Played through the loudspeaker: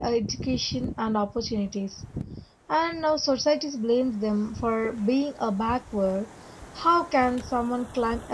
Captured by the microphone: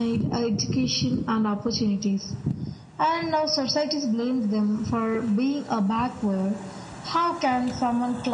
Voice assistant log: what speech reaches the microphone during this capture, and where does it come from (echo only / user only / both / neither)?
echo only